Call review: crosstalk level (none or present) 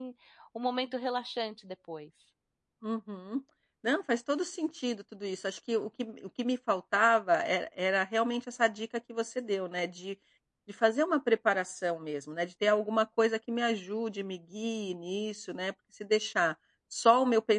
none